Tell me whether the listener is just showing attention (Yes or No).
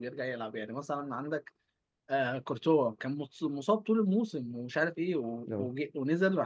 Yes